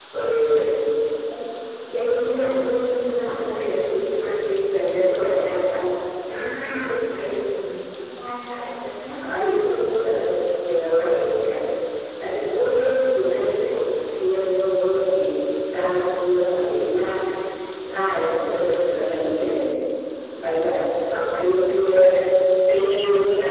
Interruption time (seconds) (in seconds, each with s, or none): none